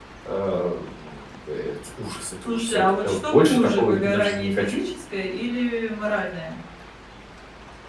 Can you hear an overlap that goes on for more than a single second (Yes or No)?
Yes